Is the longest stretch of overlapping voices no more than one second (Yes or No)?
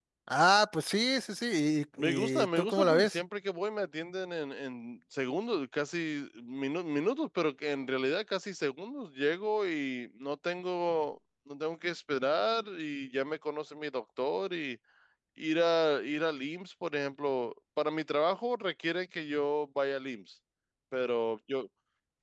No